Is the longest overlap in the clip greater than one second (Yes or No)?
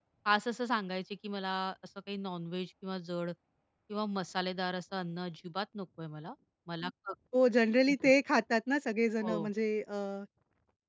No